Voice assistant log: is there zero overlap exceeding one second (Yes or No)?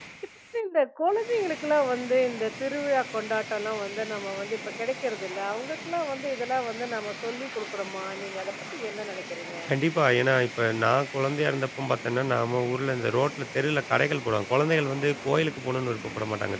Yes